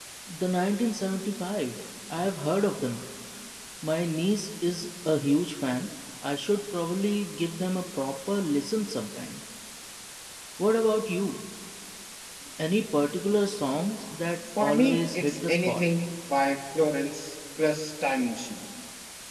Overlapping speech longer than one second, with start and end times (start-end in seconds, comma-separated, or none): 14.6-15.8